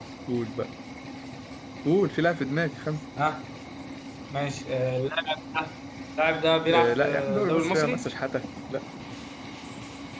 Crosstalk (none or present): present